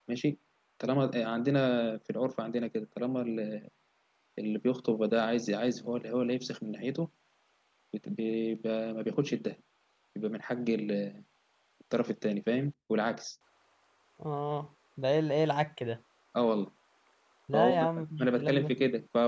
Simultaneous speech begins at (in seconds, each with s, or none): 17.5 s